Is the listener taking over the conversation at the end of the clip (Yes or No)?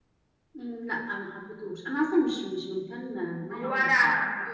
Yes